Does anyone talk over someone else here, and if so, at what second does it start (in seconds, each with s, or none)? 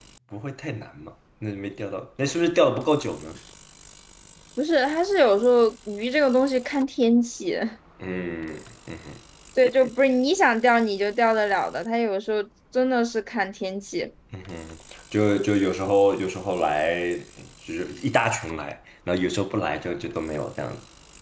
none